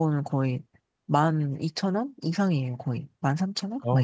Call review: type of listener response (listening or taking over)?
taking over